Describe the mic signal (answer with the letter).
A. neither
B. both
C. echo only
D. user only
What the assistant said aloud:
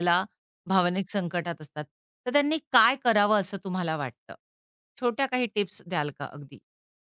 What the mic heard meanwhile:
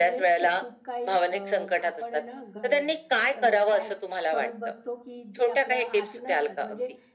B